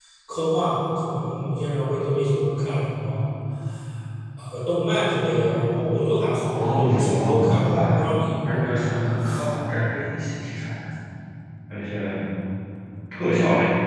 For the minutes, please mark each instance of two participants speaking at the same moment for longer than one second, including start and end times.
6.5-8.0

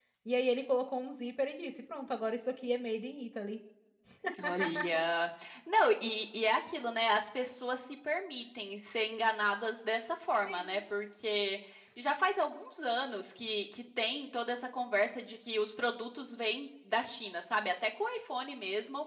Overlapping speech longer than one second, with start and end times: none

